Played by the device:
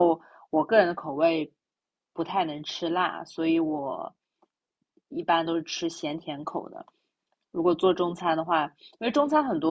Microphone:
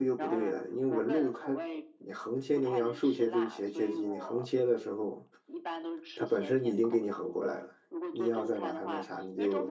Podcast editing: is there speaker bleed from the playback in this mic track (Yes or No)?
Yes